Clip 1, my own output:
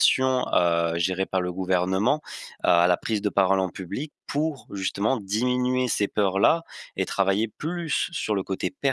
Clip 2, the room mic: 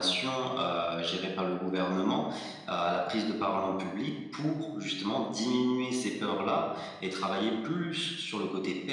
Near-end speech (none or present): none